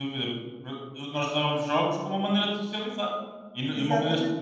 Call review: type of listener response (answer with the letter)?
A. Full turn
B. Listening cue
B